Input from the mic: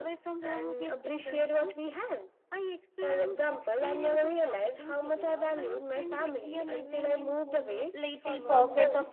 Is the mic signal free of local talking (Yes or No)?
No